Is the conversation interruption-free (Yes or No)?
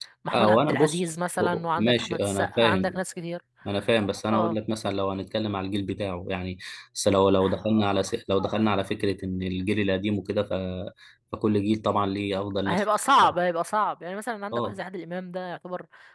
No